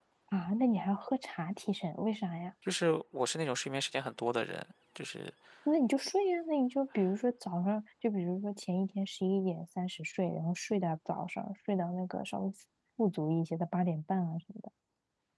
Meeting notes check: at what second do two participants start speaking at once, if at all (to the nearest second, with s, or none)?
none